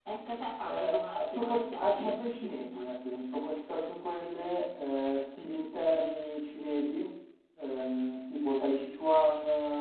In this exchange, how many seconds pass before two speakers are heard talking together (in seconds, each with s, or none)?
0.6 s